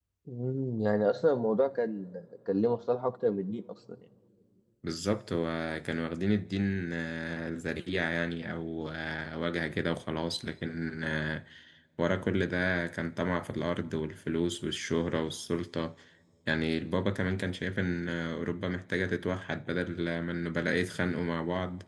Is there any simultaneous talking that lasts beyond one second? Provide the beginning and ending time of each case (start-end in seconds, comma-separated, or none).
none